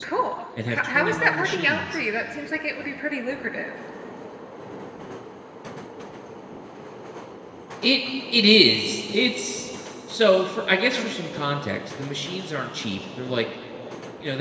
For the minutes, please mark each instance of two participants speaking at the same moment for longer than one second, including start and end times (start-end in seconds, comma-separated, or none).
0.7-2.0